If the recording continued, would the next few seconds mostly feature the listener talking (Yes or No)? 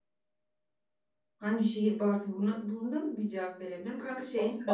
No